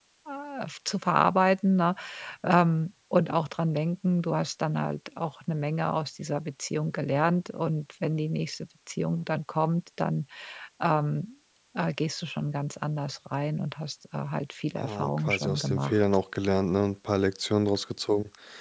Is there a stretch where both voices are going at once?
Yes, from 14.8 s

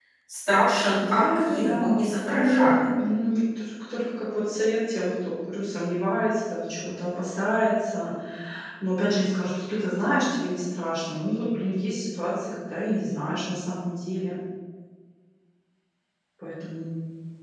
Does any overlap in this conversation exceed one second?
Yes, from 0.9 s

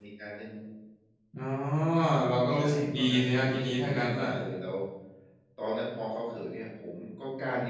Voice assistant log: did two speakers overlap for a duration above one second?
Yes, from 2.5 s

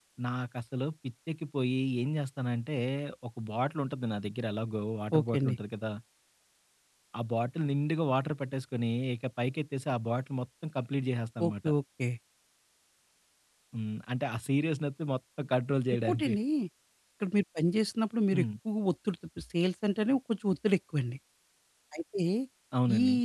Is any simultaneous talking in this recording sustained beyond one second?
No

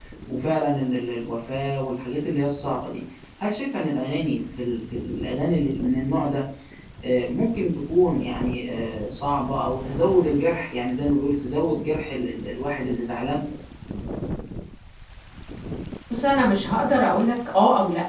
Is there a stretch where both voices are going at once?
No

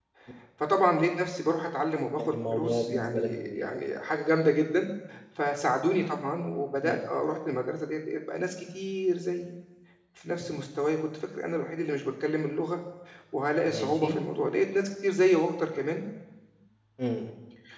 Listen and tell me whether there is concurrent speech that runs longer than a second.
Yes, from 2.2 s

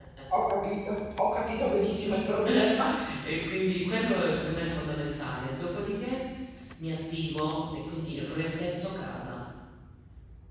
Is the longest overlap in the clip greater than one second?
No

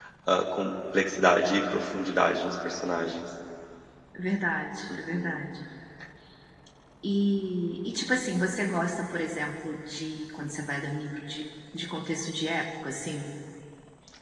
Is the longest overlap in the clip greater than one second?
No

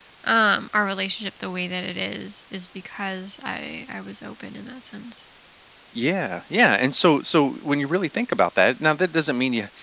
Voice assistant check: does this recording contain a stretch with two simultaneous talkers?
No

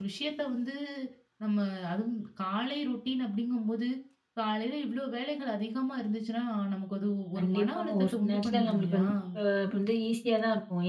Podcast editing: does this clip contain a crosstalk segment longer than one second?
Yes, from 7.3 s

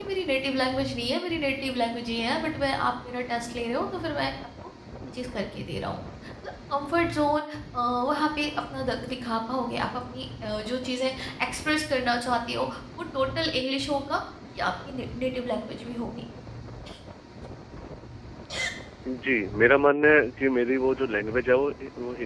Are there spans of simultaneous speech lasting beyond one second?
No

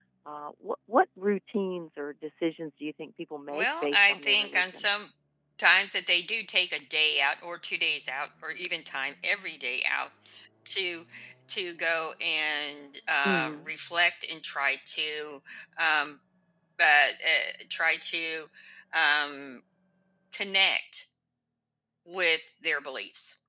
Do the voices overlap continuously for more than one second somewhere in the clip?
Yes, from 3.5 s

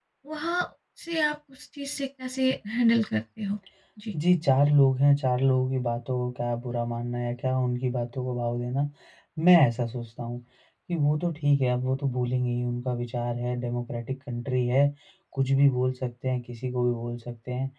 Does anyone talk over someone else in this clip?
No

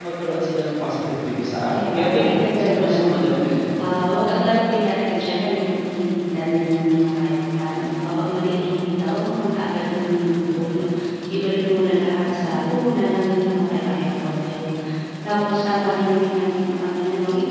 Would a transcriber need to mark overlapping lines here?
Yes, from 1.7 s

